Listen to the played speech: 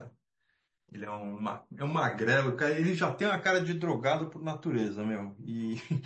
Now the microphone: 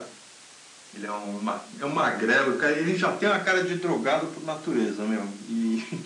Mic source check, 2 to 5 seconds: echo only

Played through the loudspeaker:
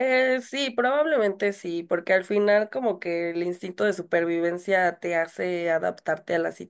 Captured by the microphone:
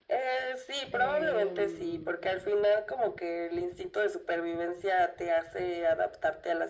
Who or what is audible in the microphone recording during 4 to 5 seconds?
echo only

